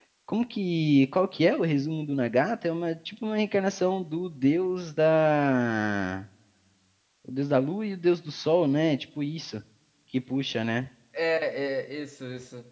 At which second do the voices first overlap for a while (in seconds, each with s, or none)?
none